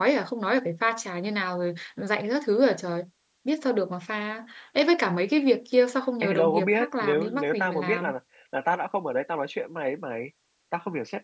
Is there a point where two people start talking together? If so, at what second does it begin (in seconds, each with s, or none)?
6.2 s